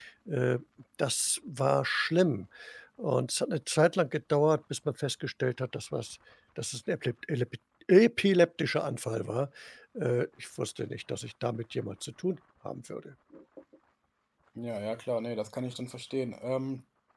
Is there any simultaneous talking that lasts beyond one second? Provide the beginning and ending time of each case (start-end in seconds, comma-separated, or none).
none